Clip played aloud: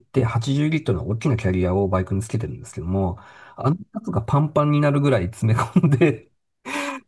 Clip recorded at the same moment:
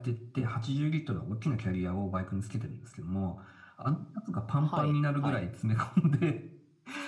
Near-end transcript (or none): はい、はい、